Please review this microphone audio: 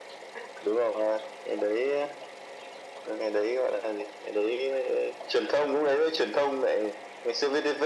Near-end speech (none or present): none